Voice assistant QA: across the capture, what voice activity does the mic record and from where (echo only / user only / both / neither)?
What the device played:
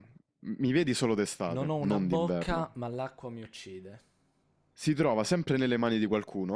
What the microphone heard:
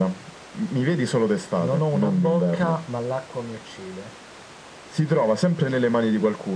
echo only